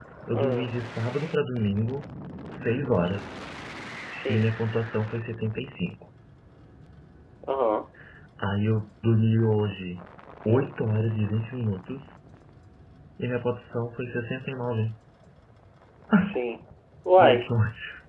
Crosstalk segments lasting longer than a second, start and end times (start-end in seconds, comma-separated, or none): none